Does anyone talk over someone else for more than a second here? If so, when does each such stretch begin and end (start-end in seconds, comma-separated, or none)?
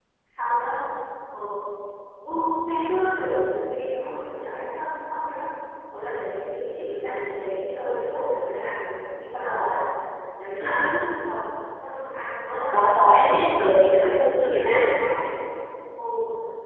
12.7-14.7